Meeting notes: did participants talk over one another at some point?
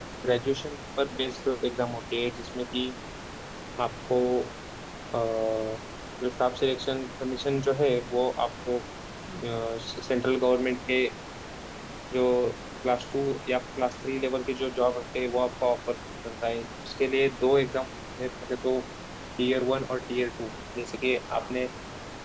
No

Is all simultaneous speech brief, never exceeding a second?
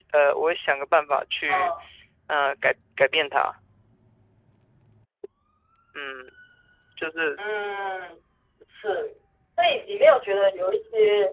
Yes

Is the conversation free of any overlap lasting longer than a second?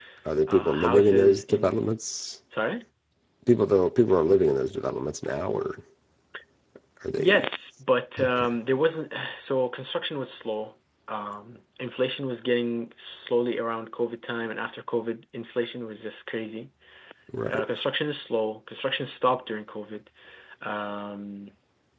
No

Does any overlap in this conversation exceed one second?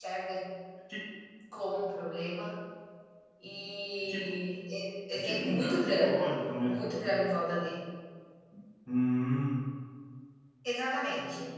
Yes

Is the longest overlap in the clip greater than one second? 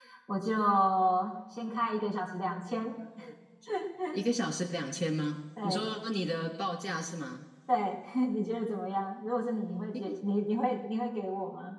No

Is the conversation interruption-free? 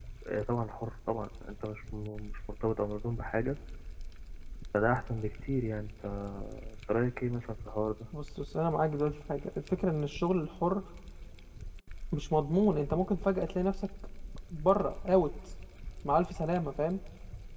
Yes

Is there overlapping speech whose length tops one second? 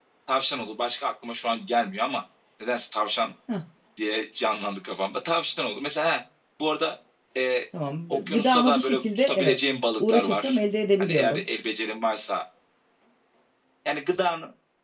Yes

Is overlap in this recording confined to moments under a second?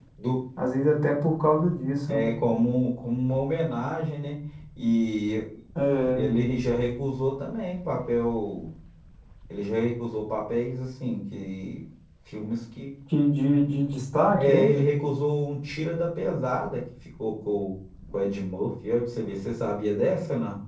Yes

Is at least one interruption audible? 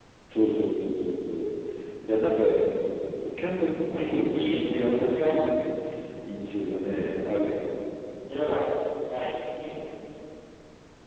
Yes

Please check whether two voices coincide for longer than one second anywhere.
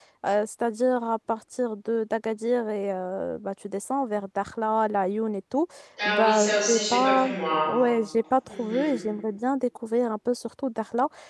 Yes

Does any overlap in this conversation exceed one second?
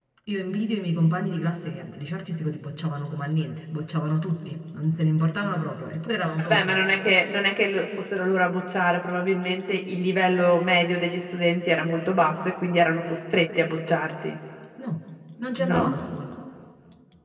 No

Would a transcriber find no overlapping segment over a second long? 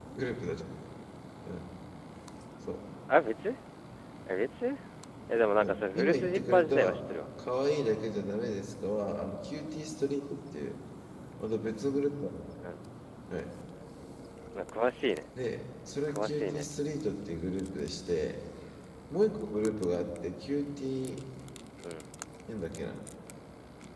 No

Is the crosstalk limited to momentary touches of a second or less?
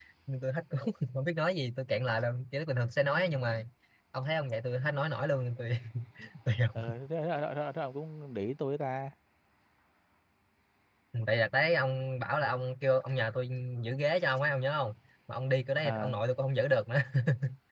Yes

